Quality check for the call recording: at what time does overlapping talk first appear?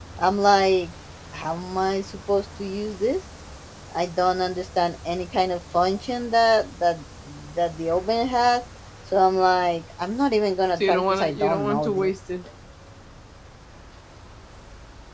11 s

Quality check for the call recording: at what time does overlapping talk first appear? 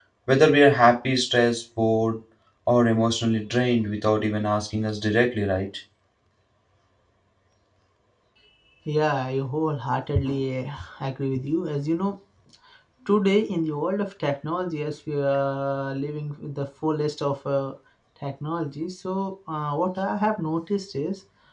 none

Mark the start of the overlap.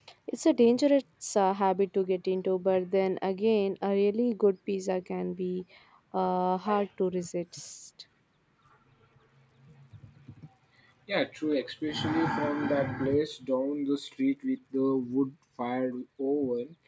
none

